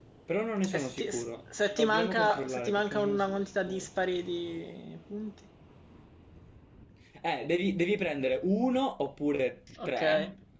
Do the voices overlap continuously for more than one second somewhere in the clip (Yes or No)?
Yes